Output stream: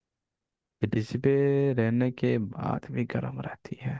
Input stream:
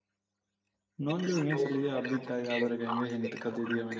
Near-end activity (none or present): present